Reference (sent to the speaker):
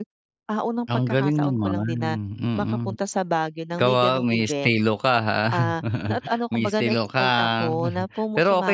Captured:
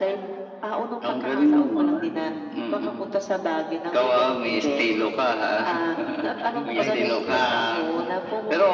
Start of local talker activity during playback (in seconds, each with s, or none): 6.5 s